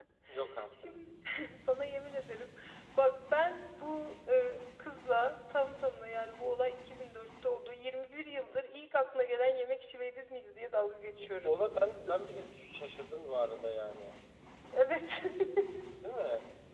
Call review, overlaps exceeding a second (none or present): none